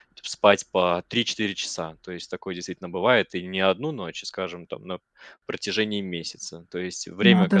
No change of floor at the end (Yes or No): Yes